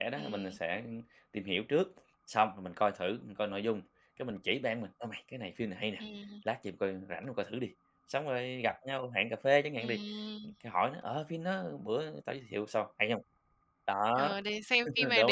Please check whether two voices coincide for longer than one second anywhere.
No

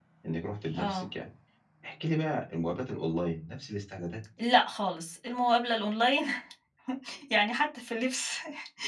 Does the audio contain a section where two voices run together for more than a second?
No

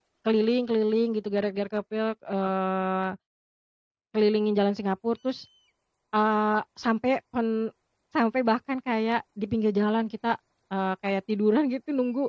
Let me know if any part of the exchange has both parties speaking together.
No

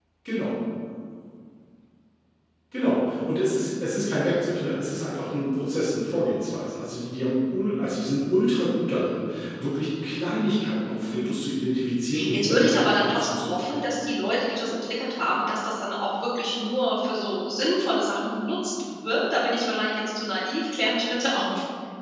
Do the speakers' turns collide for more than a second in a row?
Yes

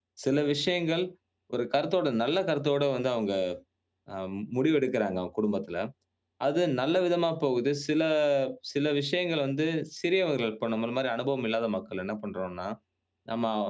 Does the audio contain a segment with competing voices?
No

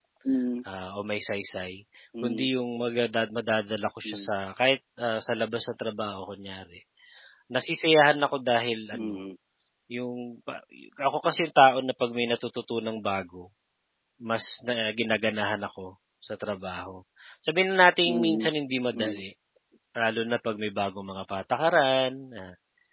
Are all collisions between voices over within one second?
Yes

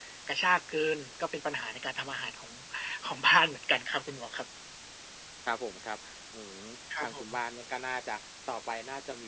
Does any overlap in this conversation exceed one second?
No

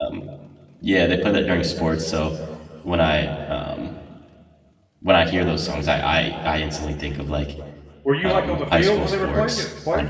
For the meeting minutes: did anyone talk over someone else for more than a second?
Yes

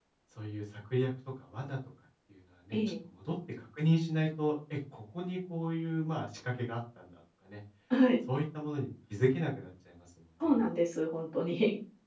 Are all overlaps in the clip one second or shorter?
Yes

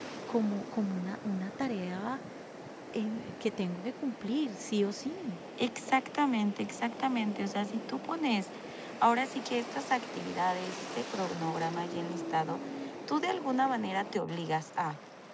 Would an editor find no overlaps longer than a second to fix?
Yes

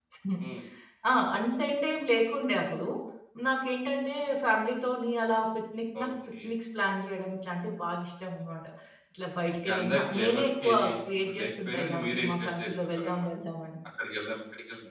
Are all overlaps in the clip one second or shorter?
No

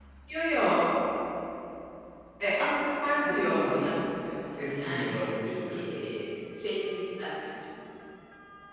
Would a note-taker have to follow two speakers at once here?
Yes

